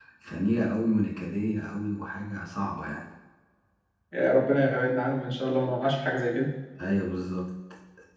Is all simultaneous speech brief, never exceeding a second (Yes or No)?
Yes